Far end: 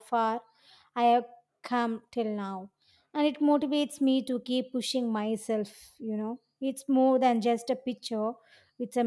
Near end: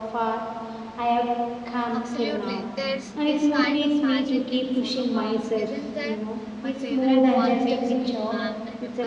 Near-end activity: present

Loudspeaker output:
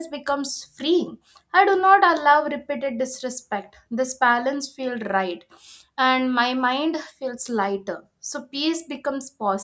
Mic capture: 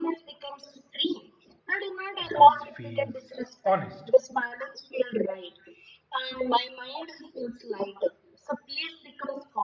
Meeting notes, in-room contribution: present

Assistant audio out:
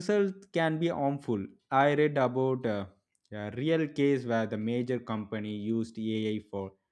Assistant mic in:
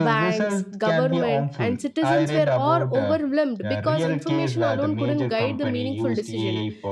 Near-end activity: present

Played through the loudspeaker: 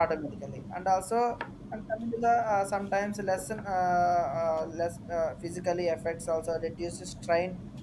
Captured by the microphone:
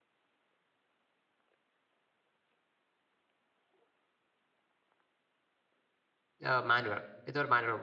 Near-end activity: present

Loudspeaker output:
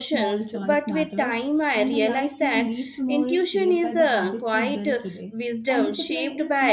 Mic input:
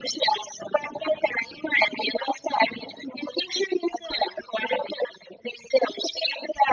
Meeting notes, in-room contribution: none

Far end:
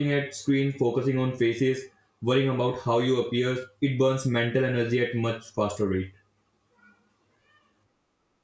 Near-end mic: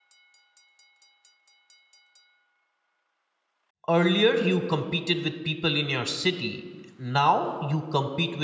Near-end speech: present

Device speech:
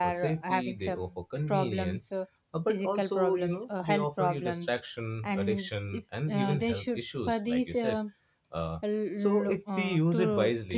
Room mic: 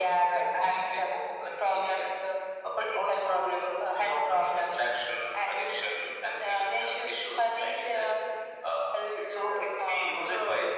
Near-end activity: none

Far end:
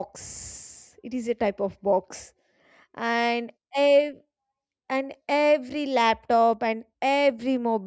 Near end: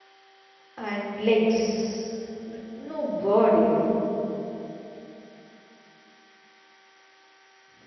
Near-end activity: present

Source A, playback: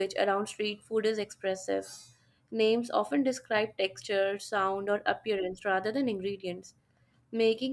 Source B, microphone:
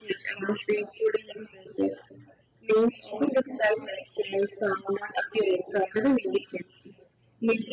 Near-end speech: none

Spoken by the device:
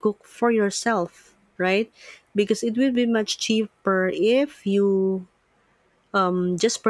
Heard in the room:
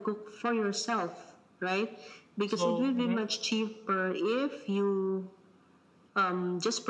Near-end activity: present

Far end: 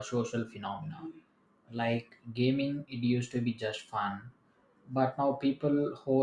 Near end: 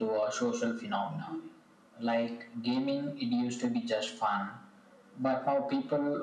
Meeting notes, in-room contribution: none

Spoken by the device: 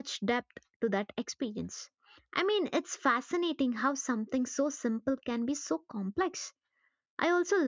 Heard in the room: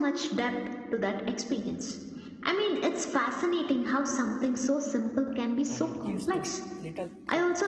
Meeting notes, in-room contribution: present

